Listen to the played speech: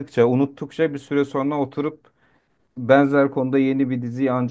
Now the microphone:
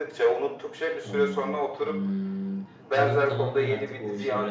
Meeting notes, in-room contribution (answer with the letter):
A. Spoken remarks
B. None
A